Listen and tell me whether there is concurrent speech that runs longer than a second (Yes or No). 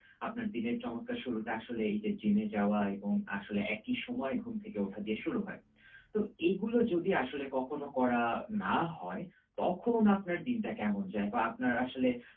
No